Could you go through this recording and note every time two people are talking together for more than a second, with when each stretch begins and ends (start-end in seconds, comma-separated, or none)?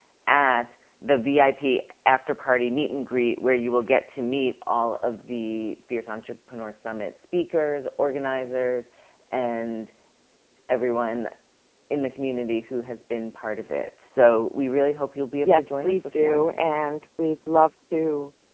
15.4-16.8